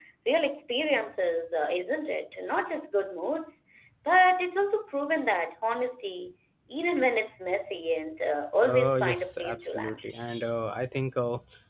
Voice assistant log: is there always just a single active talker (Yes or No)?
No